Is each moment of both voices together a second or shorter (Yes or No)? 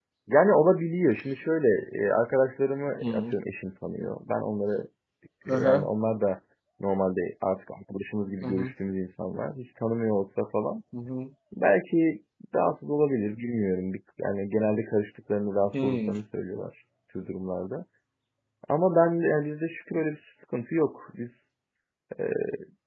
Yes